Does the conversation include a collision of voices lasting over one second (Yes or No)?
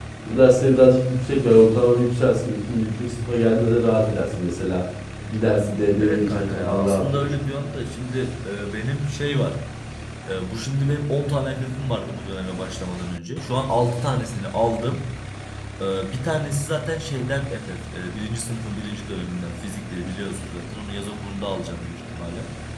Yes